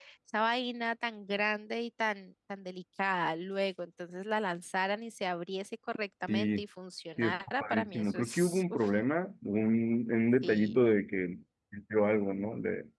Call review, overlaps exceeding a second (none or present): present